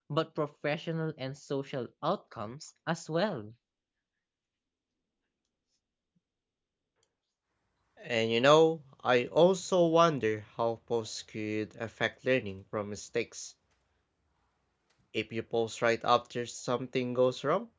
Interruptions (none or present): none